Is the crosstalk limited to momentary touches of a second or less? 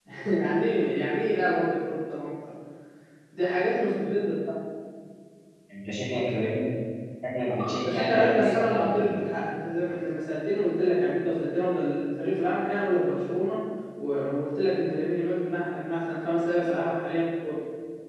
No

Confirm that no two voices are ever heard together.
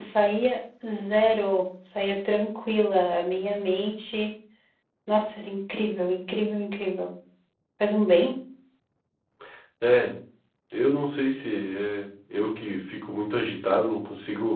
Yes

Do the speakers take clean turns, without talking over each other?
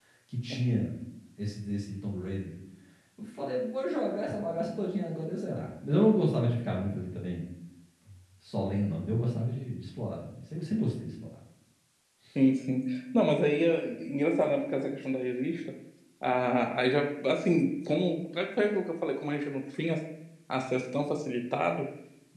Yes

